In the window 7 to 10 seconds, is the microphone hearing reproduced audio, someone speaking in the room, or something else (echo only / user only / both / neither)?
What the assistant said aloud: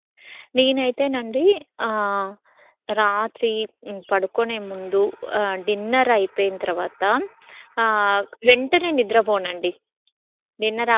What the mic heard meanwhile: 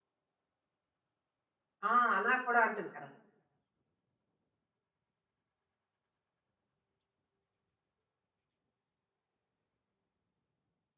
neither